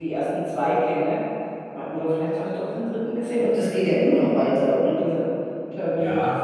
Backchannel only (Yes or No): No